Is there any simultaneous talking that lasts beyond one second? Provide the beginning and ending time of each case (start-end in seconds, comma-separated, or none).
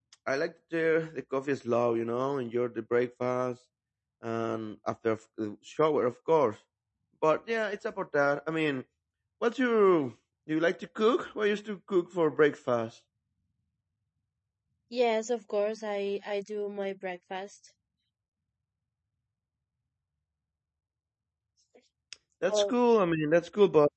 none